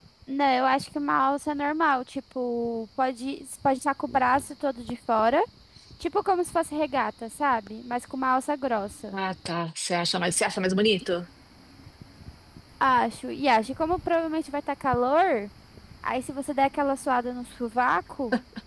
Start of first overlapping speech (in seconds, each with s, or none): none